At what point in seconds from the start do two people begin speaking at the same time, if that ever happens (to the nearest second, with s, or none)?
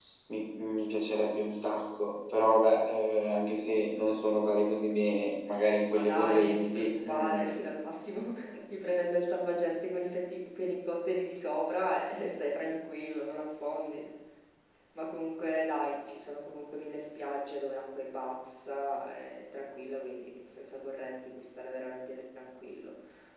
6 s